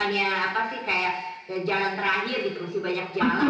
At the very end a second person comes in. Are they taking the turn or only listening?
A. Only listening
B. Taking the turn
B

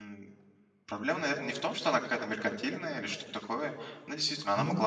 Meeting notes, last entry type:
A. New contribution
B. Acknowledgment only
B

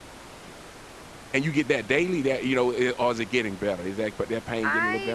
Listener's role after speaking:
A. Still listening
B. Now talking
B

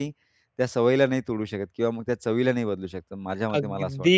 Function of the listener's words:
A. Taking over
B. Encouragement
A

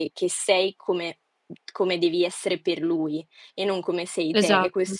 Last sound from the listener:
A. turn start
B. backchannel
B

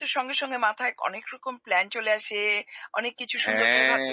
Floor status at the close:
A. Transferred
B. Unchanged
B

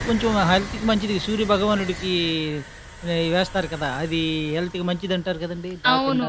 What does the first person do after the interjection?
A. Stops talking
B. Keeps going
A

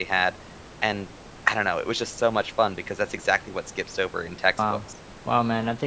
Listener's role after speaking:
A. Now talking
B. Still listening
A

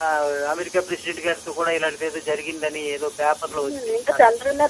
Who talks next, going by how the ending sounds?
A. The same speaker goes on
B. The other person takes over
B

